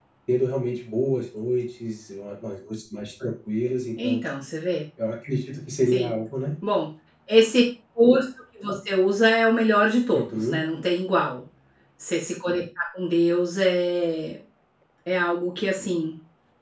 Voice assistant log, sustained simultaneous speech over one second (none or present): none